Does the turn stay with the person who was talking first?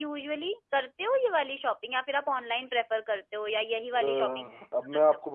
No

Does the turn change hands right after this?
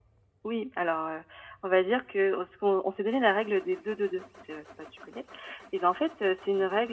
No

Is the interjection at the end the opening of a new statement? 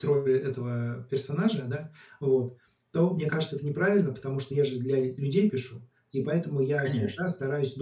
No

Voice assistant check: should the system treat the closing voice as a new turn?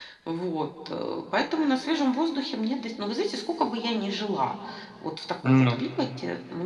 No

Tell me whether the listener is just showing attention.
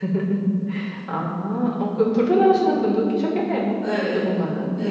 No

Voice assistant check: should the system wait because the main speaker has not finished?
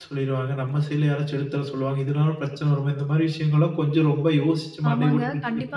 No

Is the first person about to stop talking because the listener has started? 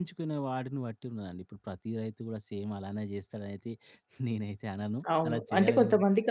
Yes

